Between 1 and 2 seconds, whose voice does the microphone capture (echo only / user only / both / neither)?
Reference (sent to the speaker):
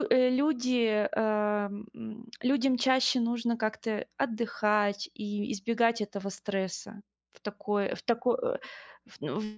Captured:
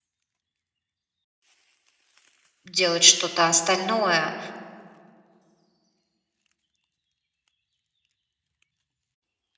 neither